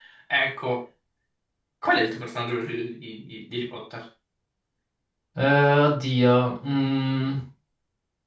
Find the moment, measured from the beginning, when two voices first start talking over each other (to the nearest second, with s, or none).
none